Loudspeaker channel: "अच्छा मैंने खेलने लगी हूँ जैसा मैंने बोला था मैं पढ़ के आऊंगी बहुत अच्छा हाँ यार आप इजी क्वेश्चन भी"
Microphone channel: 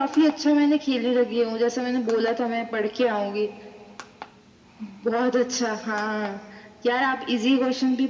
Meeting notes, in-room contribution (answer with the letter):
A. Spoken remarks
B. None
B